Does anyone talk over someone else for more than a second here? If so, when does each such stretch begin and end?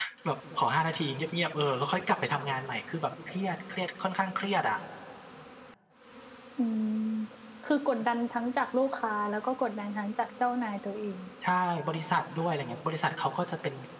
none

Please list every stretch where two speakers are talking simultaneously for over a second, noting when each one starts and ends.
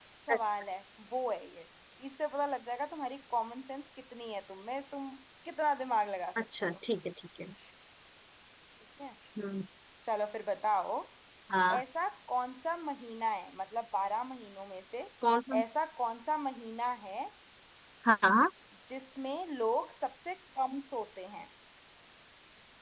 none

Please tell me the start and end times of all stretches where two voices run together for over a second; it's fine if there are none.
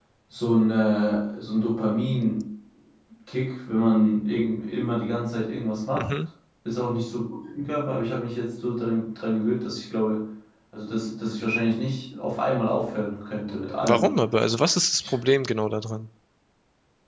none

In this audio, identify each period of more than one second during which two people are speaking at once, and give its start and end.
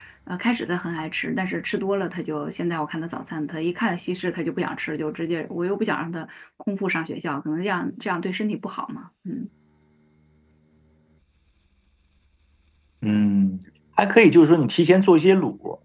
none

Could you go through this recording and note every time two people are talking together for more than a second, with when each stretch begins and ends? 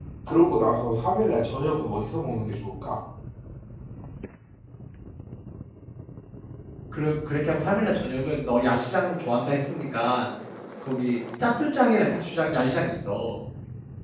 none

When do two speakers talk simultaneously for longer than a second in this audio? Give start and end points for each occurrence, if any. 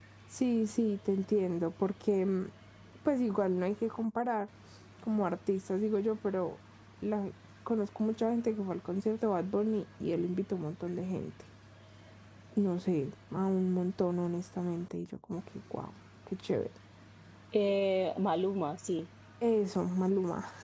none

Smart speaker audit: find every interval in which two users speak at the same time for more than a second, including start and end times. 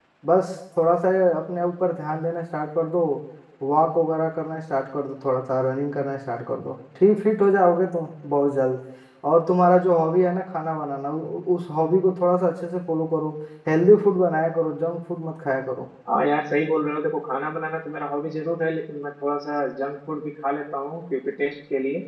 none

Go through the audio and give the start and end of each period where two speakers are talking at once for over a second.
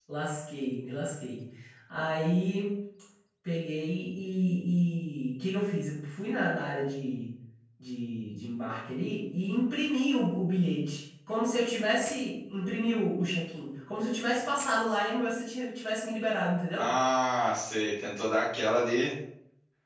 none

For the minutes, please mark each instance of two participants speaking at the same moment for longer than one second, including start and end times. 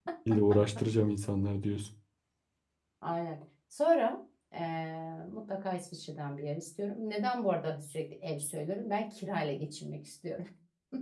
none

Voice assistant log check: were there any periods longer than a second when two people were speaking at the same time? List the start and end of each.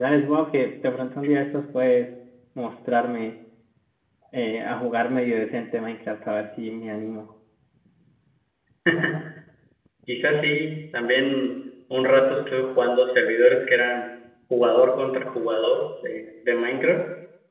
none

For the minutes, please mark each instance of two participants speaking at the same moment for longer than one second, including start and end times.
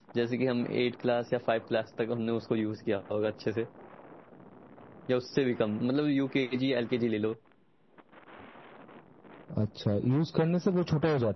none

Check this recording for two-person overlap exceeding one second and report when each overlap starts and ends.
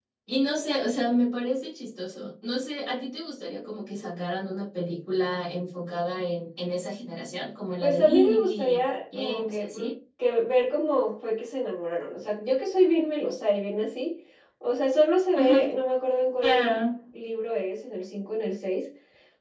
7.8-9.9

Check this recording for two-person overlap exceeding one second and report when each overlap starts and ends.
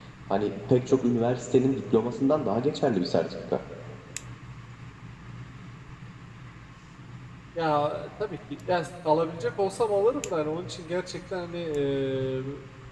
none

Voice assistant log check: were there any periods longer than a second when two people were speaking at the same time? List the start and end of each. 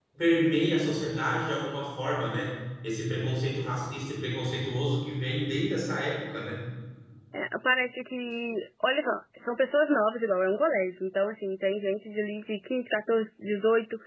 none

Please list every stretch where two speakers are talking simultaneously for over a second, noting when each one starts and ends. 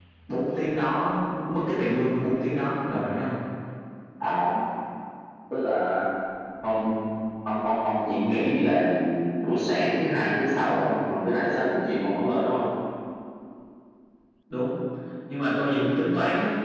none

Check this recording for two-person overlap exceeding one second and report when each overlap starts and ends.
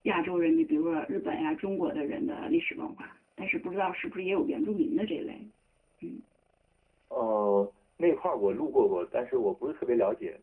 none

